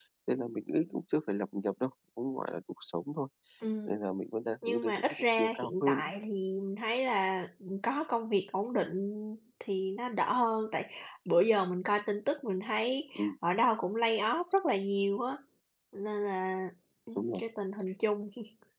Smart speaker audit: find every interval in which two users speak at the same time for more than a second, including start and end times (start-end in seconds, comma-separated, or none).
4.7-6.1